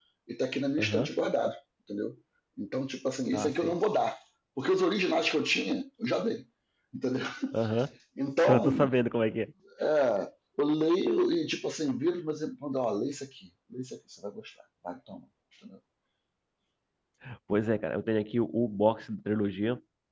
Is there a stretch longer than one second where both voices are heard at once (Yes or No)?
No